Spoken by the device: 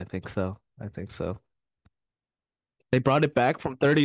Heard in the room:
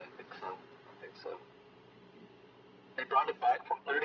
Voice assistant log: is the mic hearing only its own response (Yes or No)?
Yes